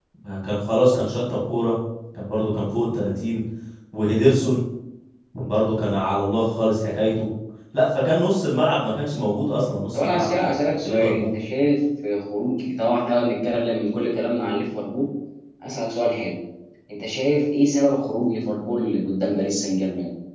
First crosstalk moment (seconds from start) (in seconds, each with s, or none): 9.9 s